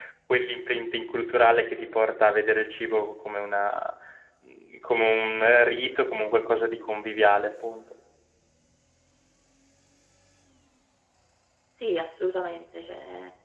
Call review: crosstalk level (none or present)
none